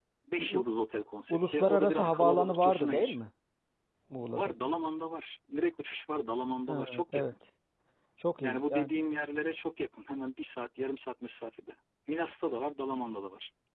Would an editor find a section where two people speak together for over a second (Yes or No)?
Yes